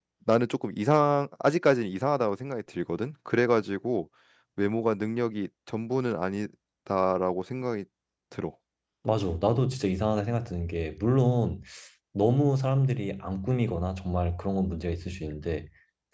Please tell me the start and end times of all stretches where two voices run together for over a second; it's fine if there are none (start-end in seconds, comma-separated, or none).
none